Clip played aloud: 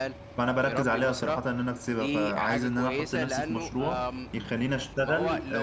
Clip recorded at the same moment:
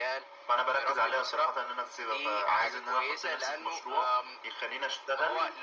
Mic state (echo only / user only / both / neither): echo only